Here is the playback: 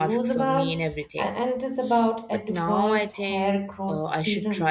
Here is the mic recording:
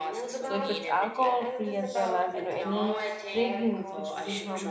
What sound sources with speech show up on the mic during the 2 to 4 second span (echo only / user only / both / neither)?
both